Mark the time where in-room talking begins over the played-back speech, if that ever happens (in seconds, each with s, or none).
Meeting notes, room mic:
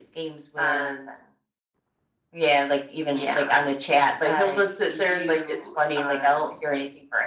none